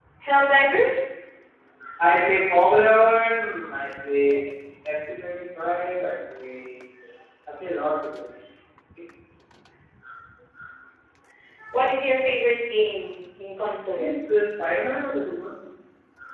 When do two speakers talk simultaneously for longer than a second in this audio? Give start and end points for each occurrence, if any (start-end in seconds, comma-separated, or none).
none